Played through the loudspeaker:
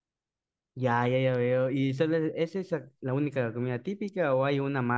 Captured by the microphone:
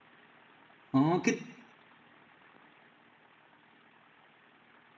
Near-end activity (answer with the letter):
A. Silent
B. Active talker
B